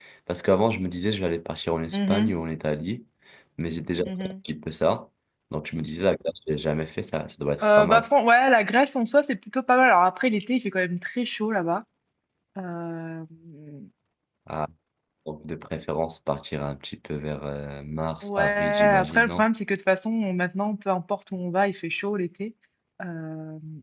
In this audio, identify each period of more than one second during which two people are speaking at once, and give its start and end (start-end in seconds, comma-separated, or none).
18.2-19.4